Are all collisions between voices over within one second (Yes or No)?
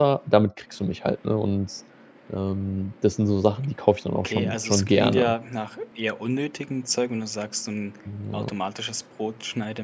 No